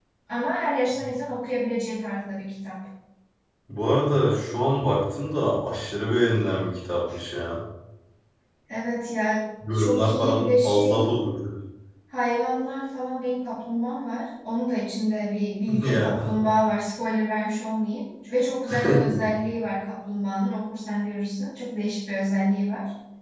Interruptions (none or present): present